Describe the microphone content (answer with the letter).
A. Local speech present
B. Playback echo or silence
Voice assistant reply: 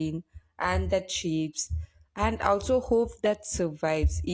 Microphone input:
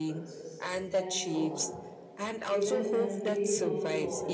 A